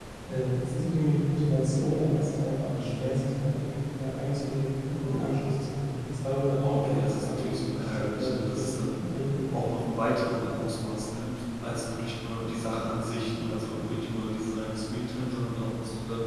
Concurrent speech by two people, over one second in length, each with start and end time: 6.7-8.8

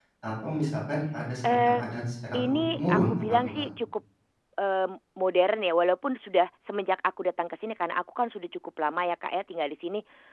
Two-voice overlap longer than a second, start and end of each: 2.4-3.6

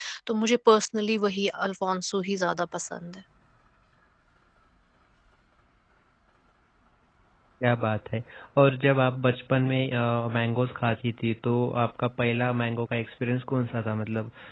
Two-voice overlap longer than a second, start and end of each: none

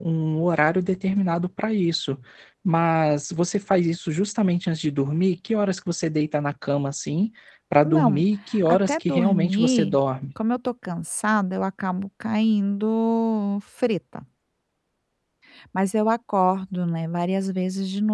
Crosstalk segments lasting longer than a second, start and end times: 8.7-10.0

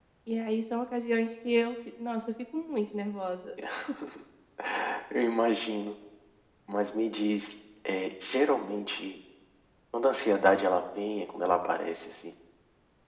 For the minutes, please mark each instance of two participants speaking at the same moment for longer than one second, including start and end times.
none

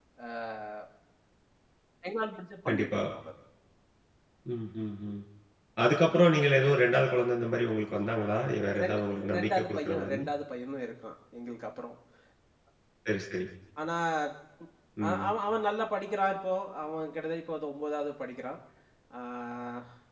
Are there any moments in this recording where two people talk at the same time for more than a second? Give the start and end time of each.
8.7-10.2

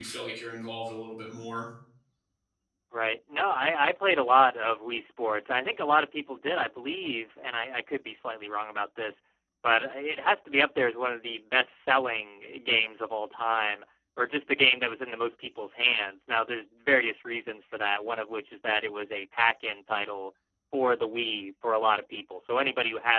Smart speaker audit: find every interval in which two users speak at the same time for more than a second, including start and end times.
none

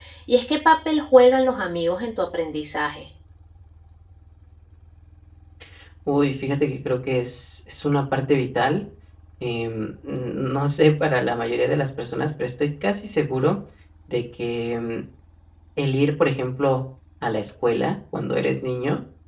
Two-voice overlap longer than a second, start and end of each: none

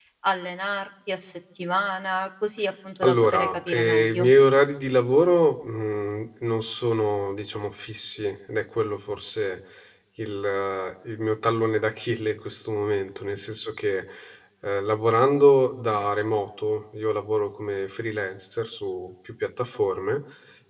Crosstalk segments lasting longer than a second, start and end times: 3.0-4.3

